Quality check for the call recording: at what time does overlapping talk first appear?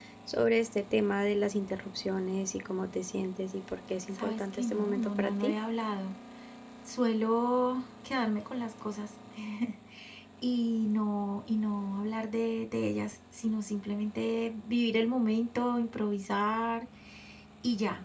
4.2 s

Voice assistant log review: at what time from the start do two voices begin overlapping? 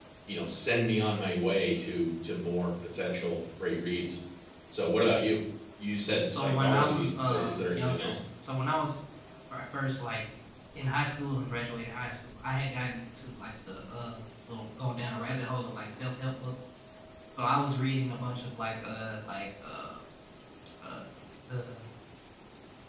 6.3 s

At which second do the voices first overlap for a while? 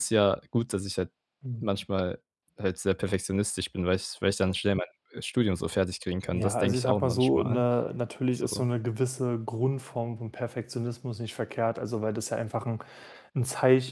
6.3 s

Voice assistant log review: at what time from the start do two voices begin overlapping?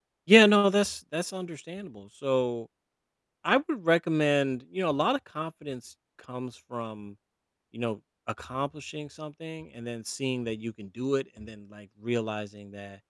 none

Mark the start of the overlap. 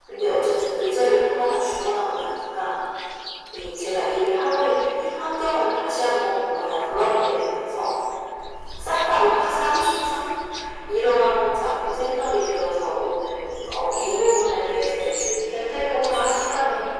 13.9 s

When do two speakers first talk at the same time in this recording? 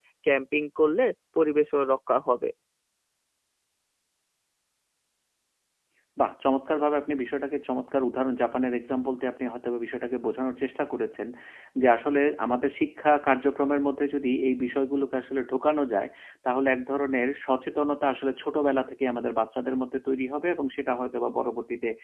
none

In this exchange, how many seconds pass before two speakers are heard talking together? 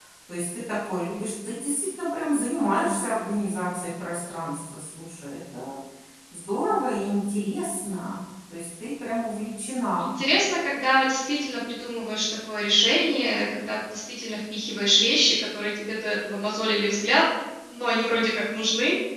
none

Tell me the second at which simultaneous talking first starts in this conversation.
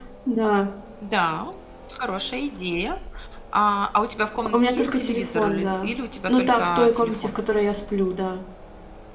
4.5 s

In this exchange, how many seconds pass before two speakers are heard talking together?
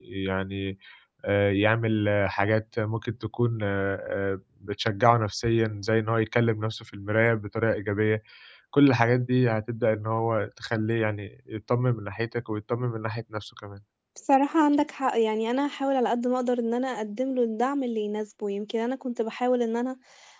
none

